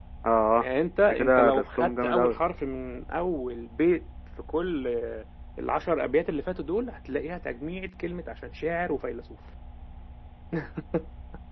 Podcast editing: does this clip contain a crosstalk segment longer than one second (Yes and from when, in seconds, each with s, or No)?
Yes, from 1.1 s